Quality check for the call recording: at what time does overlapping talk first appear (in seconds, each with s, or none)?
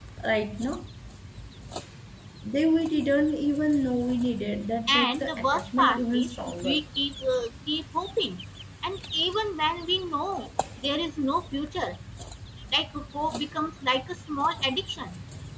4.9 s